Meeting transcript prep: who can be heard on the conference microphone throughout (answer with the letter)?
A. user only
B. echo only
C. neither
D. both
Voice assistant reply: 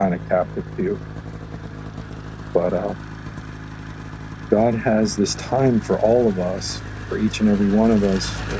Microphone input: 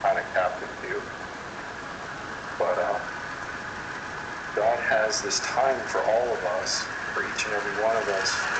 B